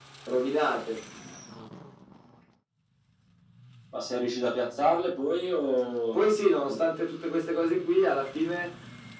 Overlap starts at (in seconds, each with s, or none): none